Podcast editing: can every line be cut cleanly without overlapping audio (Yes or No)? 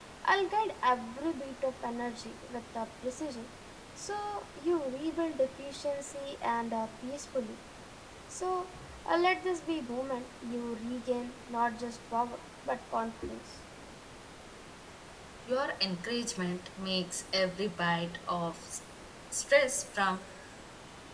Yes